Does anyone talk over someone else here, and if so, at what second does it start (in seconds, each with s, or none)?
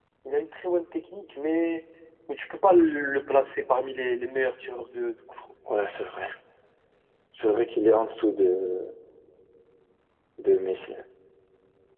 none